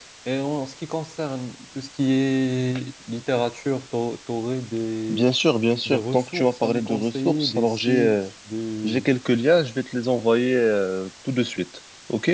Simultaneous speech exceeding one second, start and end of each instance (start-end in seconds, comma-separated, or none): 5.8-8.3